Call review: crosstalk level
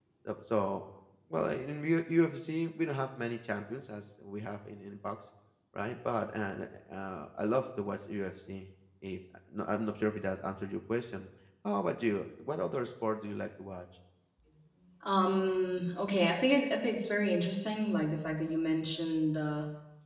none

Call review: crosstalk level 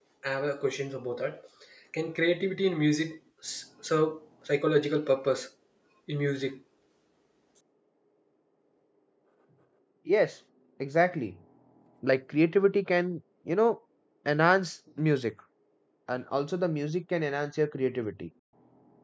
none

